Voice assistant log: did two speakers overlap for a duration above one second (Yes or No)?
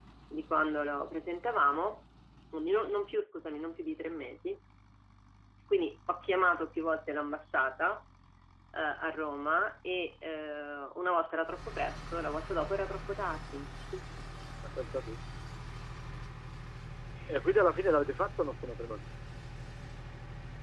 No